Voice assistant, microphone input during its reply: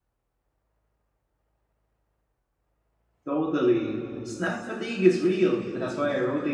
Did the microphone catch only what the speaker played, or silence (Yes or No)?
No